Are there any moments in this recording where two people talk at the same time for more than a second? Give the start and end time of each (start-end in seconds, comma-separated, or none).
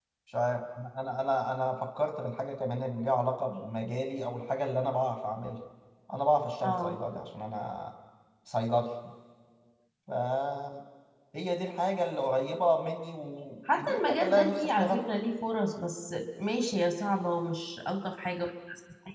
13.8-15.0